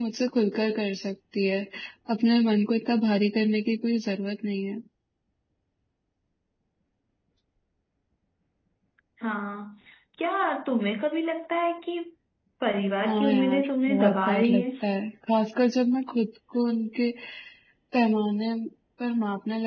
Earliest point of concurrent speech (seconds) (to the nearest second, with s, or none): 13 s